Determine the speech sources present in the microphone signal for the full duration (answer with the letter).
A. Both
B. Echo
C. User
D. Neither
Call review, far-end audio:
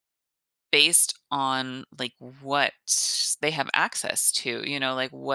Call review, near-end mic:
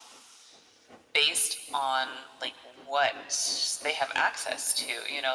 B